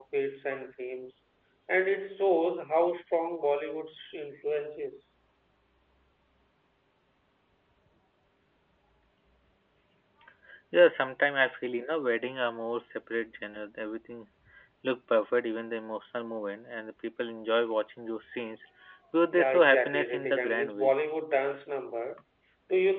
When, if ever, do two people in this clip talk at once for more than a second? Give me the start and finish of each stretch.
19.3-20.9

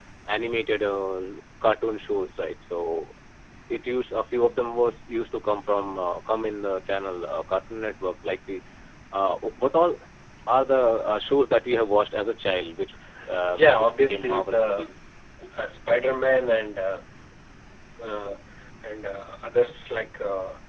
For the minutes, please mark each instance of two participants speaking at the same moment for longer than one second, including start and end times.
13.4-14.9

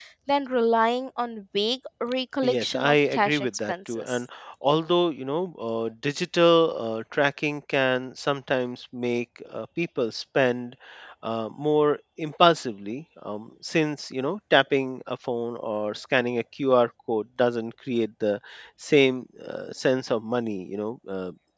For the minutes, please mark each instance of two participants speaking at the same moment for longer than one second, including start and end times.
2.5-4.2

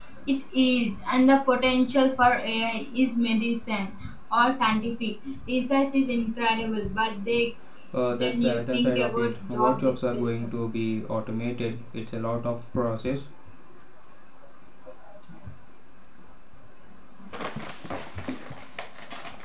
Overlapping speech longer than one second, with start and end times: 8.2-10.5

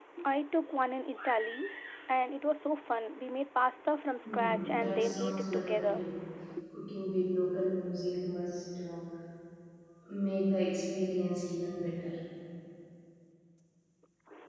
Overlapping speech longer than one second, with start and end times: 4.2-6.0

